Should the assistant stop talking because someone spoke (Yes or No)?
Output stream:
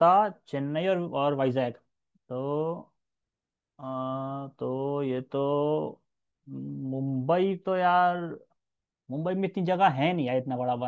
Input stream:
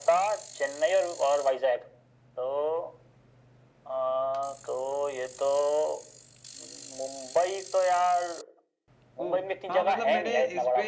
Yes